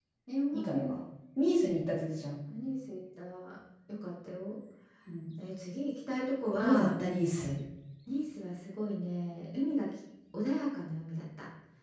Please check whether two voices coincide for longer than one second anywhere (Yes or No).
No